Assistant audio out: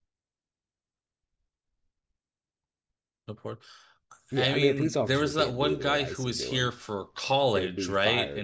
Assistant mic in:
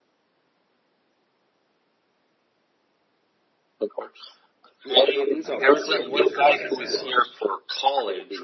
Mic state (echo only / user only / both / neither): both